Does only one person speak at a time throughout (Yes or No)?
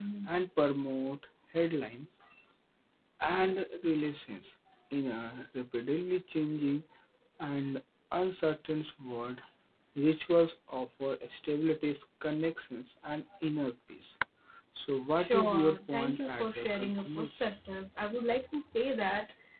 No